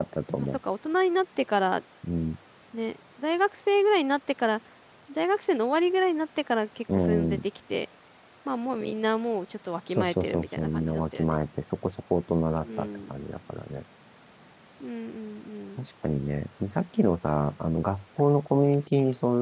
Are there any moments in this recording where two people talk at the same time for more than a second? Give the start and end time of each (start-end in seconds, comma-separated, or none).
9.9-11.4